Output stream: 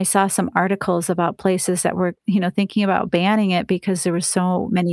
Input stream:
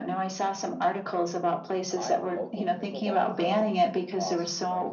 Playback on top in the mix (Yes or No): Yes